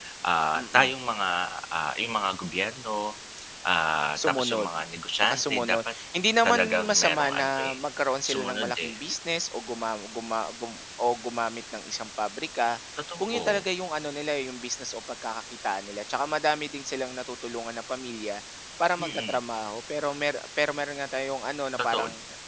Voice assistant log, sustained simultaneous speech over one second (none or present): present